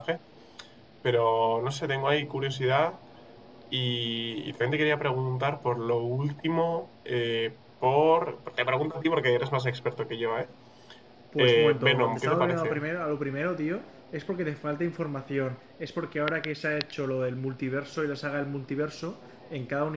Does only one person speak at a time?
No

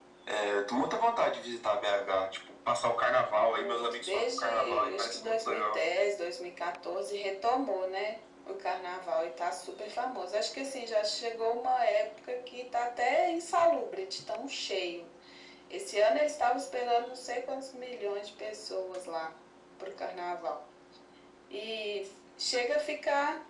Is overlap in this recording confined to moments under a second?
No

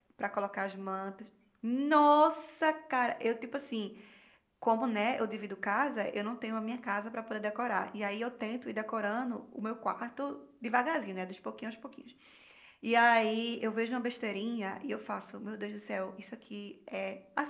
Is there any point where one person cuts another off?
No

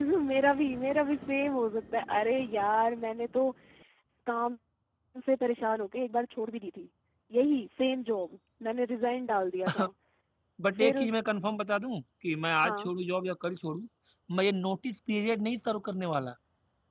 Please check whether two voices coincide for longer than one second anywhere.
No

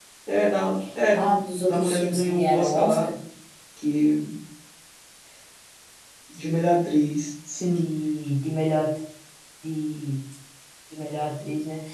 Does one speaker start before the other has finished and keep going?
Yes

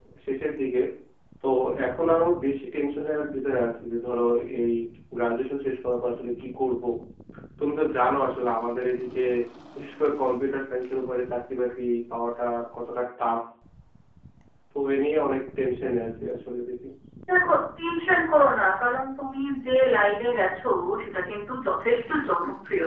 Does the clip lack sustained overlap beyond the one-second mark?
Yes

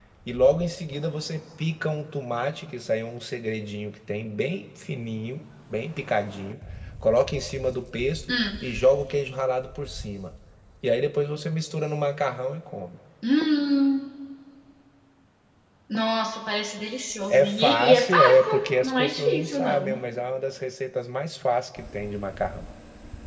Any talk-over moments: Yes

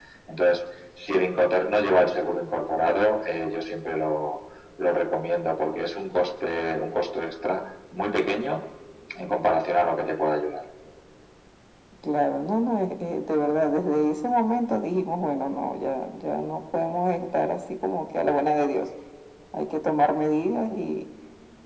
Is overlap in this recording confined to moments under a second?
Yes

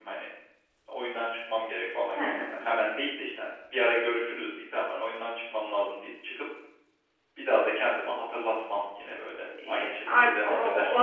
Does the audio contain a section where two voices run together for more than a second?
Yes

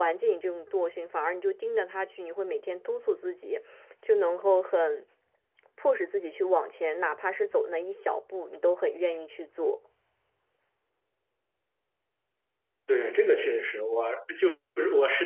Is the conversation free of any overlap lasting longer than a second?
Yes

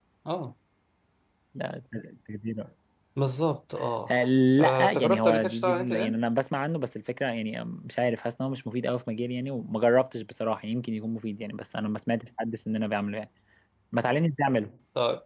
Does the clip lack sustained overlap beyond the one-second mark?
No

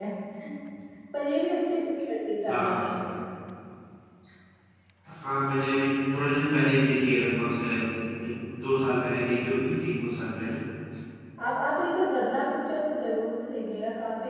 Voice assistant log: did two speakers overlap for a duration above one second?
No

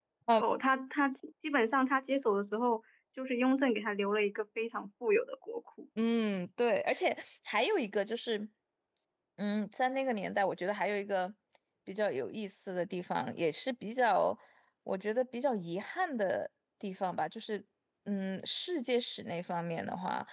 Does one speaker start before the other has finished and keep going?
No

